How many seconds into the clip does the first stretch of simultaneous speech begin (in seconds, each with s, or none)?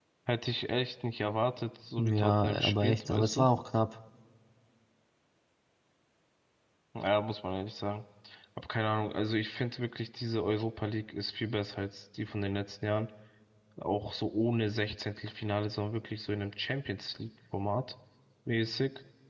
2.0 s